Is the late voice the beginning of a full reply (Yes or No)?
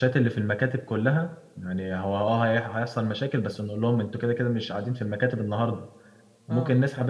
No